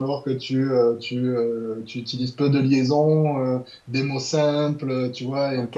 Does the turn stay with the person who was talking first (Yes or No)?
No